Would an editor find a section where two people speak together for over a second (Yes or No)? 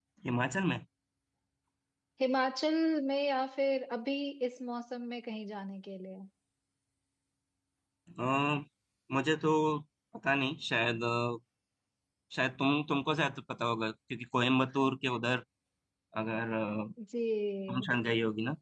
No